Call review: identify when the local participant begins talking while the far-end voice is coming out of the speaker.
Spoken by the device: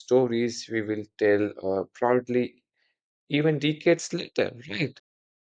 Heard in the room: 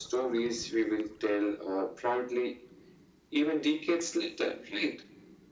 none

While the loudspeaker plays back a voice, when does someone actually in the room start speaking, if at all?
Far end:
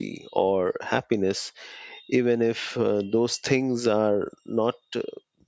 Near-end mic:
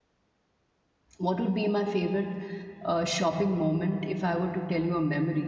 1 s

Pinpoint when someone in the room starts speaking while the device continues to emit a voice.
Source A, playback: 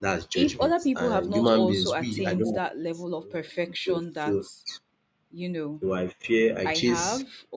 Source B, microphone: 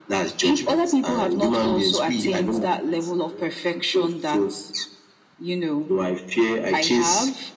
none

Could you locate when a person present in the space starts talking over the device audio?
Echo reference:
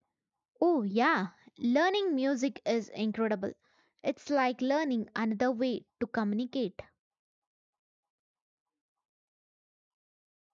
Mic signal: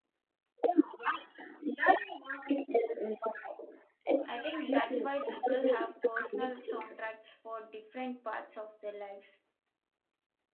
4 s

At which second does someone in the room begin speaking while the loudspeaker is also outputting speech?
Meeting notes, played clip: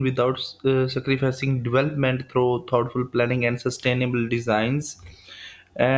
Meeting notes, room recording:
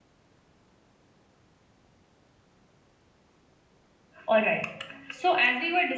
4 s

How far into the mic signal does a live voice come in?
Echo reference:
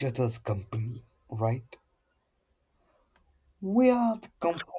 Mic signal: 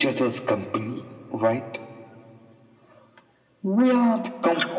none

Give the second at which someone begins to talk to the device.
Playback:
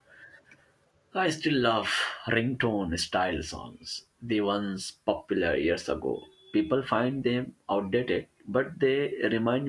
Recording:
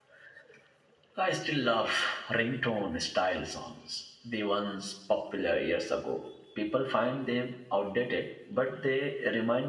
none

